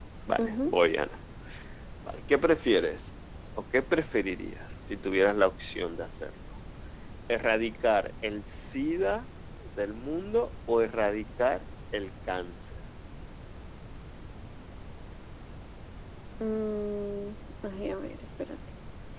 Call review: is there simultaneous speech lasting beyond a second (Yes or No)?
No